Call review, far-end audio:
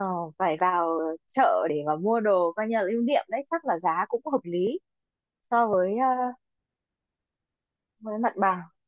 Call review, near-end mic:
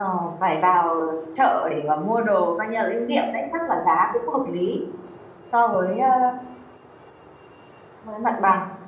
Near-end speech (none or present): none